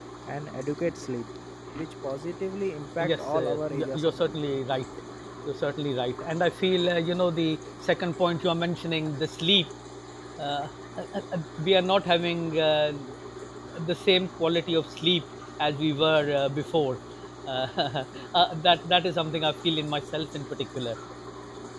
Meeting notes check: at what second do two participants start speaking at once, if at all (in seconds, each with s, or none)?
3.0 s